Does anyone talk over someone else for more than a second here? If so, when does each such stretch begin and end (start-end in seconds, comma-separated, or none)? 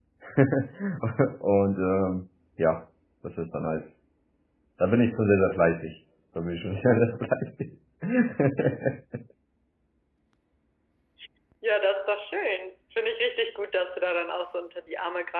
none